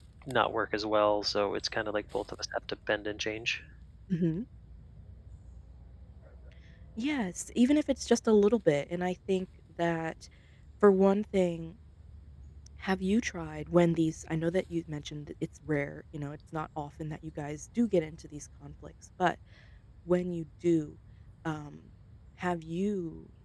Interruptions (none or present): none